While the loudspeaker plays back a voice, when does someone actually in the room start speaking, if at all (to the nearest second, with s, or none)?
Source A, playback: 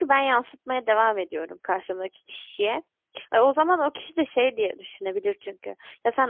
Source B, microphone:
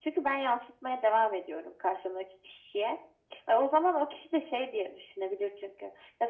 none